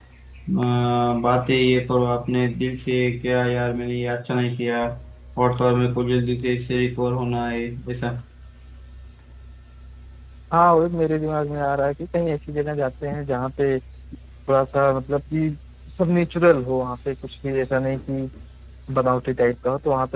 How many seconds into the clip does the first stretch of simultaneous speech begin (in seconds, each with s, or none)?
none